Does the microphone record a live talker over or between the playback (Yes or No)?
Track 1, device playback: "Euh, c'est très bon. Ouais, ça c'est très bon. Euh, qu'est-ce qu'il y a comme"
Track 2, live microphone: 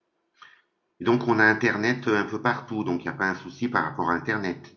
Yes